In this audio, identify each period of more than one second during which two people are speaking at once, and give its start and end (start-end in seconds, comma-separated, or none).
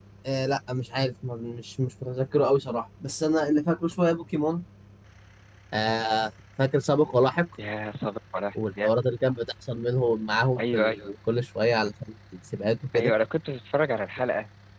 none